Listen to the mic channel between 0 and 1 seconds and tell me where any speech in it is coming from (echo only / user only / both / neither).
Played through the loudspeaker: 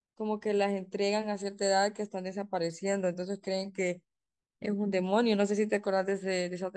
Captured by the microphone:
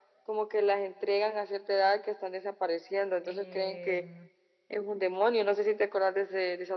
echo only